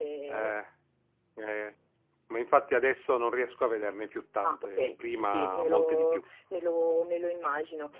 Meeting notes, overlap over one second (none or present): present